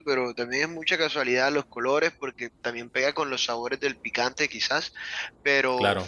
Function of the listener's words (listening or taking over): listening